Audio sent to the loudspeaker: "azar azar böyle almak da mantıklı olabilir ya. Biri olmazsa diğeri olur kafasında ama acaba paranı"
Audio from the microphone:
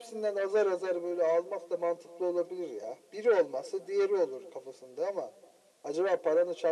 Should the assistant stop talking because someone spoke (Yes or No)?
No